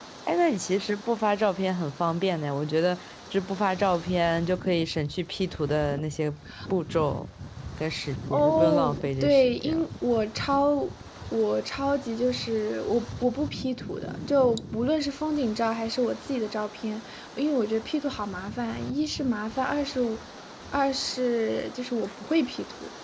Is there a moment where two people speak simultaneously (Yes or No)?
Yes